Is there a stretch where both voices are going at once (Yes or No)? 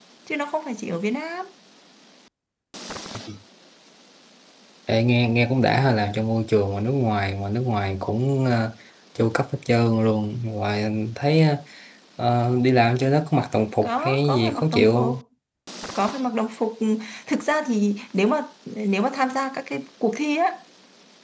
Yes